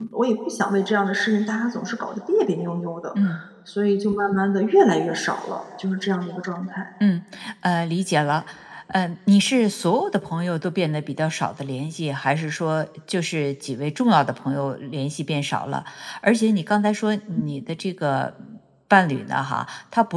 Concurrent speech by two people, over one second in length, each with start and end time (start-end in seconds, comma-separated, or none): none